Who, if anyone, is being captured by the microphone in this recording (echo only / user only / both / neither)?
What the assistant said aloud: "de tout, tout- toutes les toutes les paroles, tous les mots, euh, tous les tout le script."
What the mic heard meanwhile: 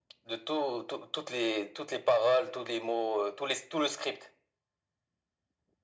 echo only